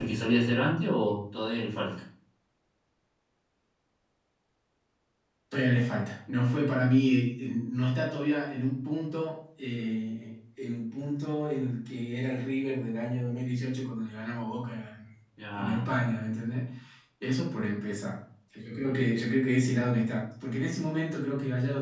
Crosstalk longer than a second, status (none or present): none